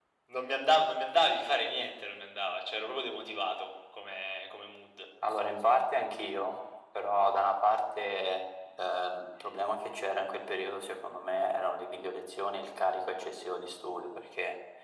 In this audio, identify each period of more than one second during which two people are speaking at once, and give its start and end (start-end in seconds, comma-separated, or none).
none